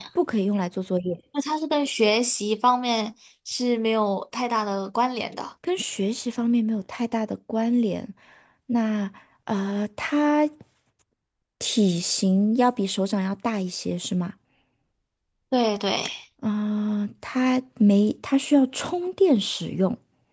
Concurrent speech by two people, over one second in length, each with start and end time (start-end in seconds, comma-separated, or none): none